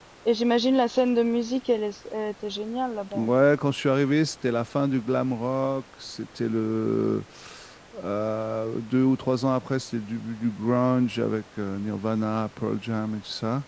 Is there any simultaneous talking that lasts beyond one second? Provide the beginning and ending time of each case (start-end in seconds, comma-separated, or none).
none